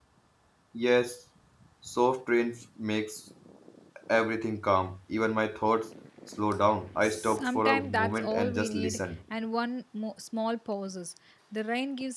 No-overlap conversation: No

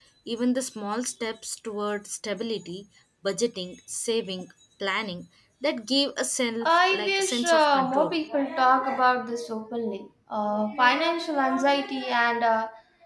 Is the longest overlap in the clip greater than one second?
Yes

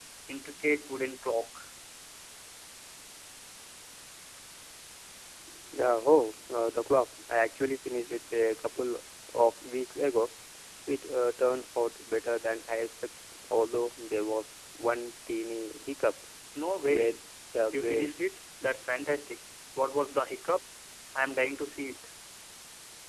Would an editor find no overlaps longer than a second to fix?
Yes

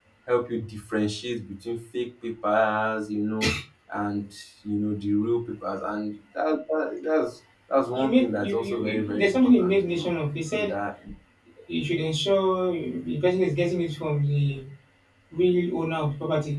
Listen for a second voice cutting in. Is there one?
Yes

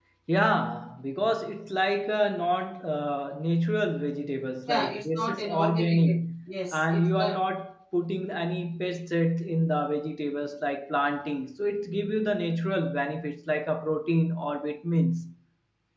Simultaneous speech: Yes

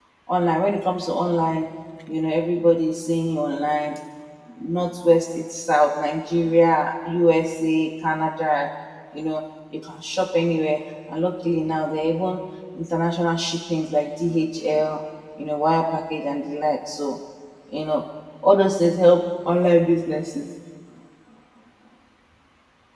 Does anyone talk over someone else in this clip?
No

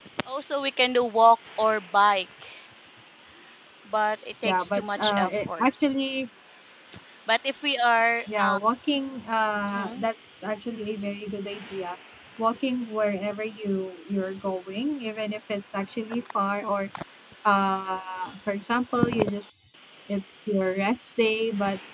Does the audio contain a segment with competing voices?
Yes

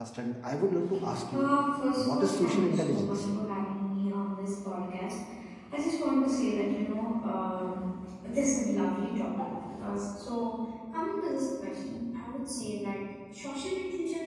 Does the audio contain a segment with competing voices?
Yes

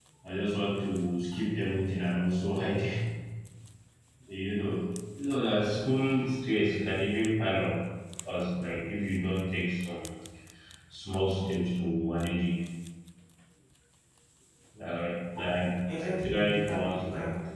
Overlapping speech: Yes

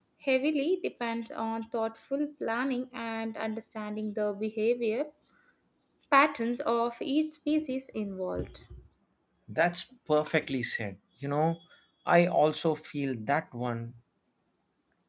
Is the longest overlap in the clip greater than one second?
No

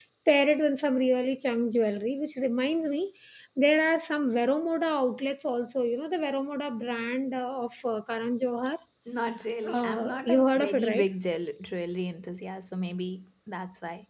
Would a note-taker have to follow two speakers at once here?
Yes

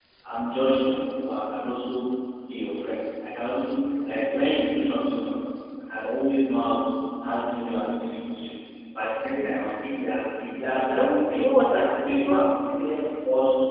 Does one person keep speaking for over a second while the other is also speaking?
Yes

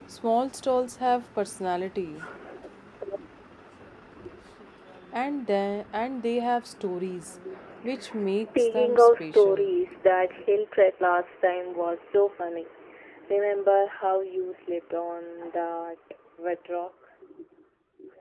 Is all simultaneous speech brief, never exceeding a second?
No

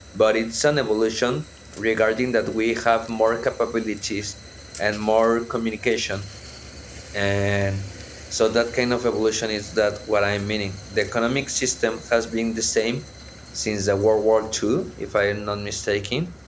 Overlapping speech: No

